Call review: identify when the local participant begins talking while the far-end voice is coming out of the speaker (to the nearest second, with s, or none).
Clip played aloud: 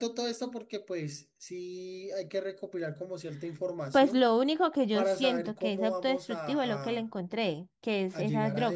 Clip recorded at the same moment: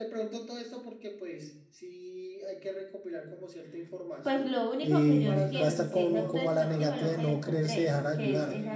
5 s